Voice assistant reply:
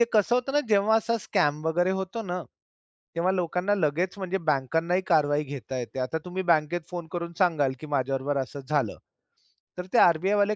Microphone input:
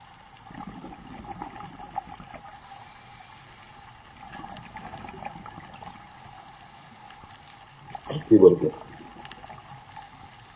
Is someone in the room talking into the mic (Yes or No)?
Yes